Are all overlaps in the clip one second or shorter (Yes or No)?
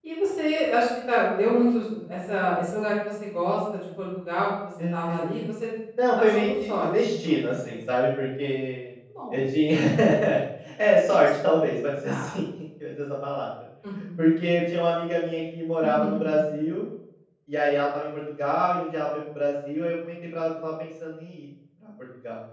No